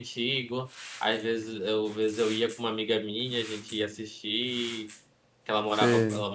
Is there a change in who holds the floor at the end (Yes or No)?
No